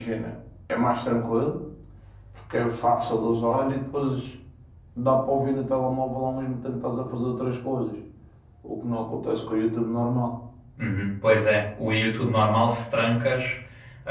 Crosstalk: none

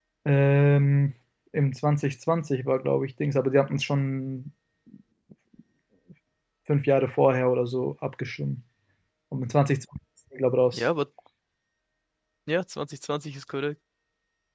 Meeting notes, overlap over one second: none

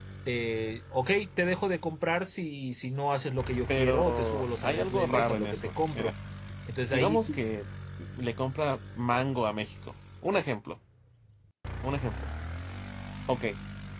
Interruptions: present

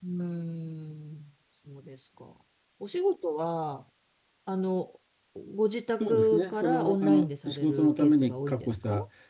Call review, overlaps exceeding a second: present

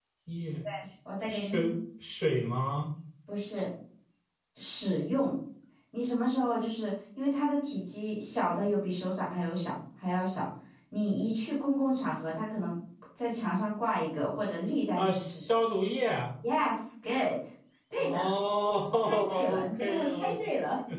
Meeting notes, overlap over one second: present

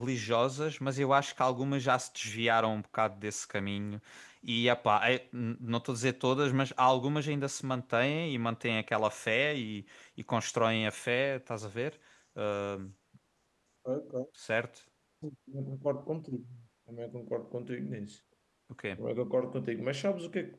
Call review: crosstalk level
none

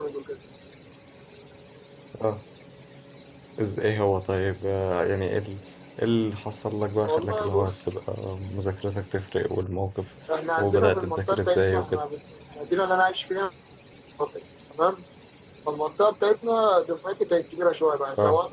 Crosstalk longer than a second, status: present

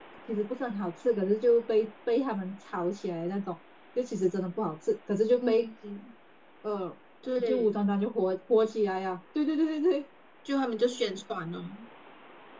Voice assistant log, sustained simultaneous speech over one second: none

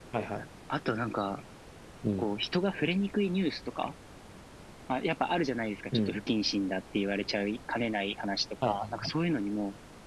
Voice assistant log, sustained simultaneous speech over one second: none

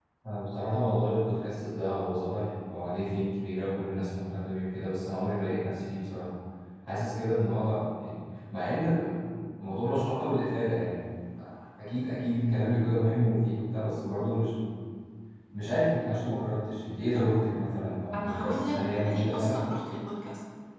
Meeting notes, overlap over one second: present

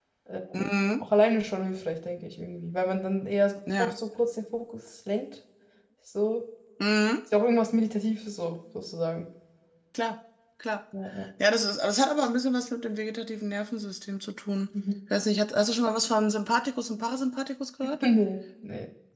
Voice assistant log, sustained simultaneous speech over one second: none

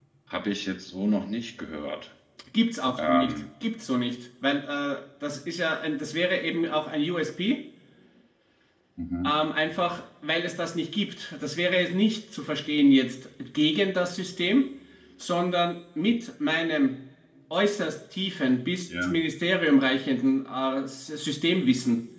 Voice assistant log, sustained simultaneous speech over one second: none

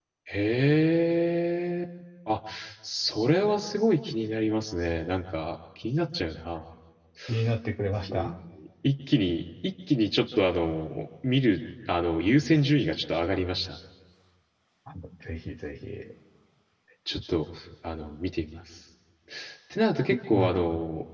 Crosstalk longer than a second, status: none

